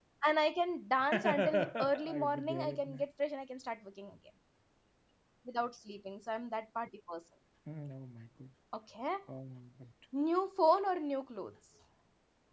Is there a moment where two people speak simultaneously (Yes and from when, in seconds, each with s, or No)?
Yes, from 1.1 s